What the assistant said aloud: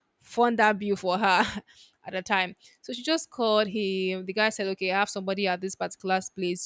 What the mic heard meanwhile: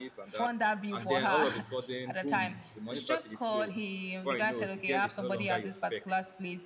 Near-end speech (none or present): present